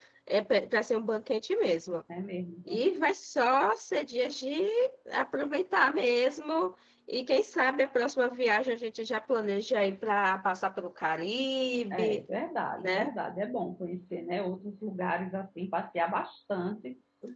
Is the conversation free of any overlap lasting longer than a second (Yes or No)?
Yes